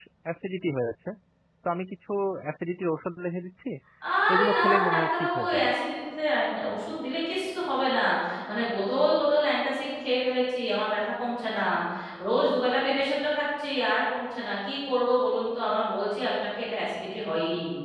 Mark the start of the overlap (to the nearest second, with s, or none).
4 s